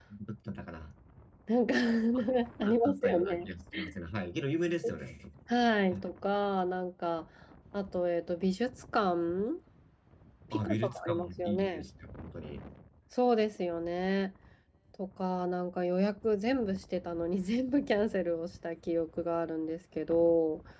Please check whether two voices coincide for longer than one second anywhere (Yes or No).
Yes